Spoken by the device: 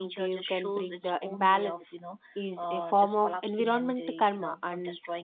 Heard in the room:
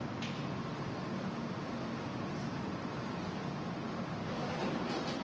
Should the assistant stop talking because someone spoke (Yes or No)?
No